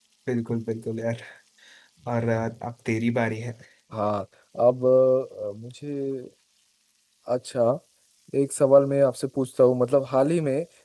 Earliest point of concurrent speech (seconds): none

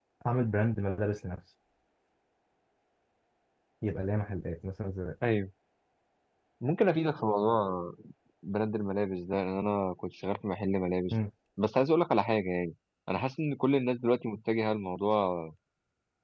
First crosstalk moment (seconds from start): none

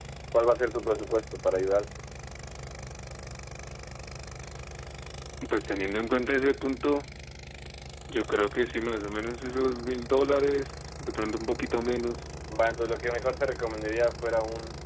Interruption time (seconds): none

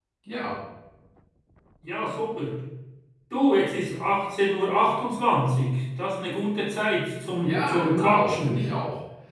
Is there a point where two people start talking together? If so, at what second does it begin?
7.4 s

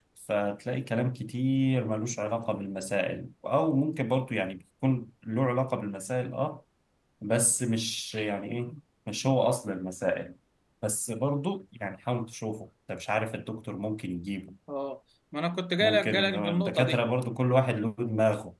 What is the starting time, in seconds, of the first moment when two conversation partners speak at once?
15.8 s

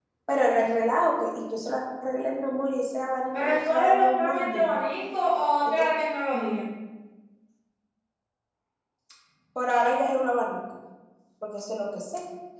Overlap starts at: 3.4 s

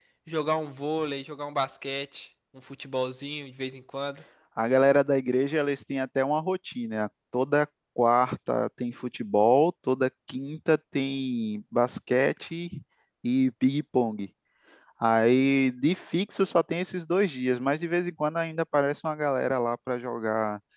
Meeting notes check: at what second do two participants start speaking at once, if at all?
none

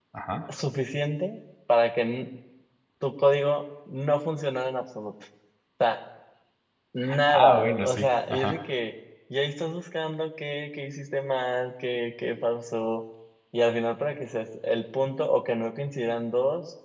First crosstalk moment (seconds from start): 7.3 s

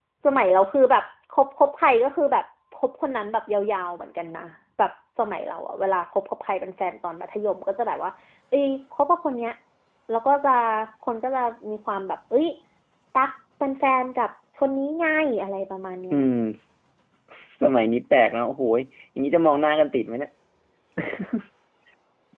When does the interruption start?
none

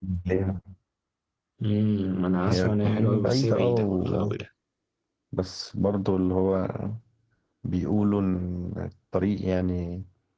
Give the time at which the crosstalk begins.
2.5 s

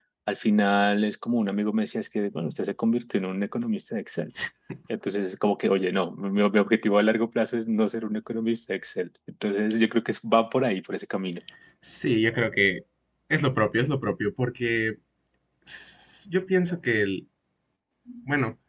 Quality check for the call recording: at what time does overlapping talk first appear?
none

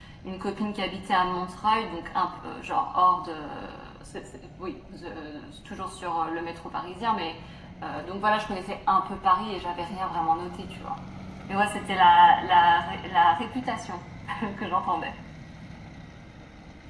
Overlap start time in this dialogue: none

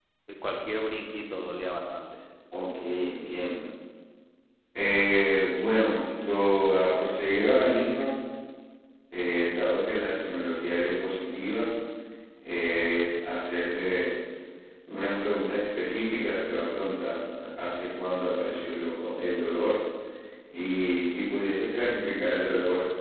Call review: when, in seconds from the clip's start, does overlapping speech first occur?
none

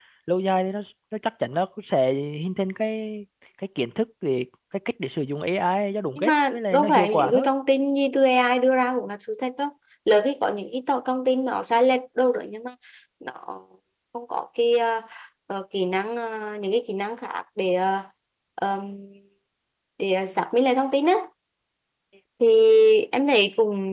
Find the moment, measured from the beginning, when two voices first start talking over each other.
6.2 s

